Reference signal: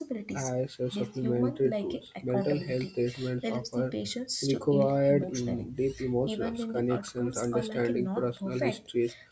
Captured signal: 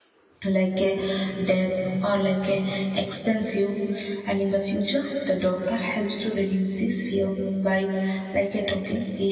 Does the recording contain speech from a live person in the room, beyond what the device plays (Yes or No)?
Yes